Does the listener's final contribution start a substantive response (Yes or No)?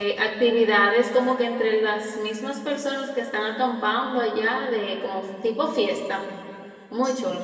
Yes